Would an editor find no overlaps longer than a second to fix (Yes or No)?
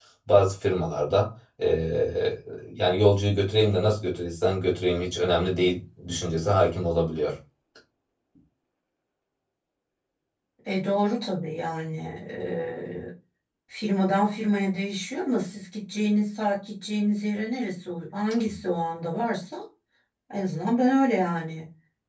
Yes